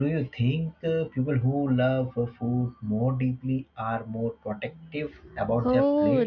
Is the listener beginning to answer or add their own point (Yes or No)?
Yes